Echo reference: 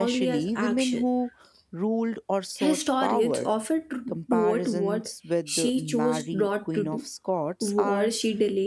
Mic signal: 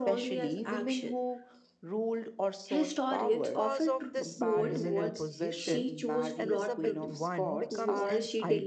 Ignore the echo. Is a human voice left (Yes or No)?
Yes